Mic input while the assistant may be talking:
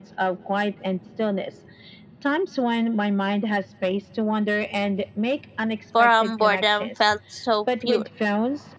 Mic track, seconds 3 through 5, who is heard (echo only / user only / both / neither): echo only